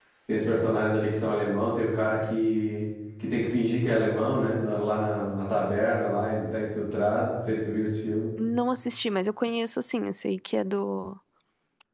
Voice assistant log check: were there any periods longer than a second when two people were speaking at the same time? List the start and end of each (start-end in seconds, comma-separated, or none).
none